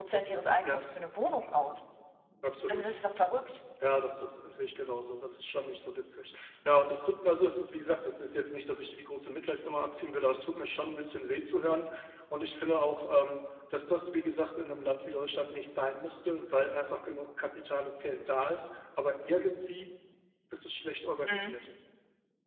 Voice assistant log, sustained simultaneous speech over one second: none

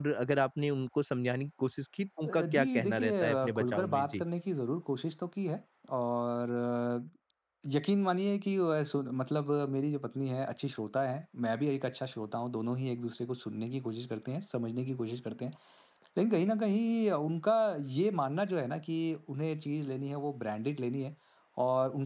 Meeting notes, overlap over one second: present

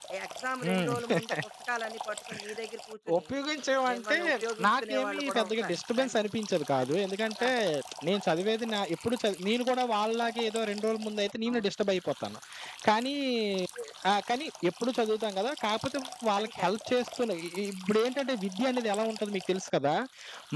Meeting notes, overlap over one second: present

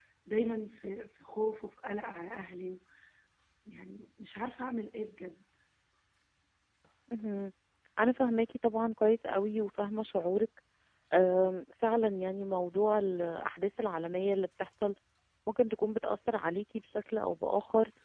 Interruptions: none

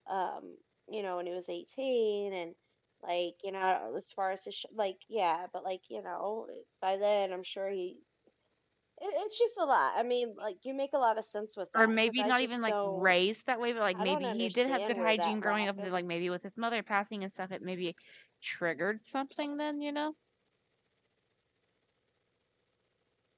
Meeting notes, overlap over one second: present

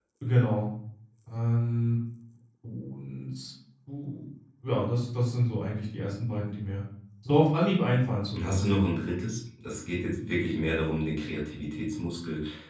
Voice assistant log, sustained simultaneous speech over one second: none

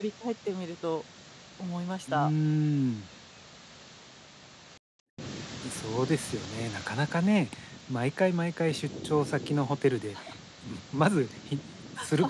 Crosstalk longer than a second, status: none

